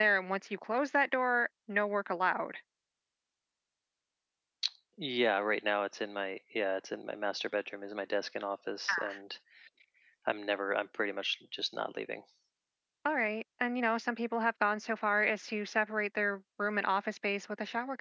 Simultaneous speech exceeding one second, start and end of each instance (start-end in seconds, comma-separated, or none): none